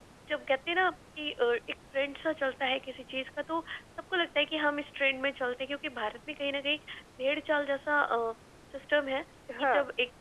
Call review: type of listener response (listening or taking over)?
listening